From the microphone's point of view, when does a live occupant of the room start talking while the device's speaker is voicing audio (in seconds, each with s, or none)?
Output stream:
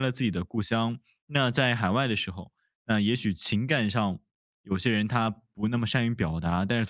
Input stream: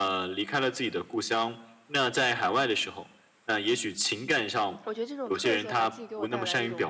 4.8 s